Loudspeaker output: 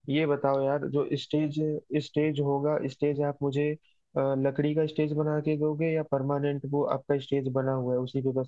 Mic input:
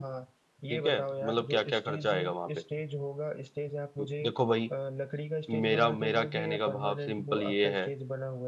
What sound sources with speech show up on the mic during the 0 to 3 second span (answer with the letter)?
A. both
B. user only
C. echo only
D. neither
A